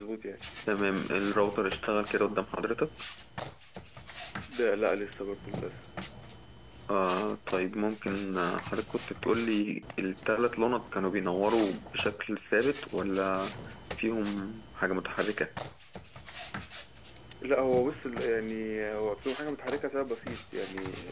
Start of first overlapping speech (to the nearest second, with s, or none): none